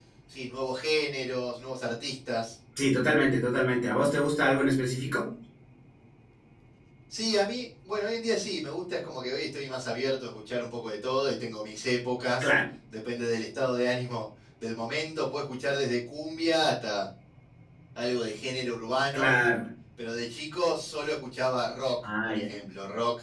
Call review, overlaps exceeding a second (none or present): none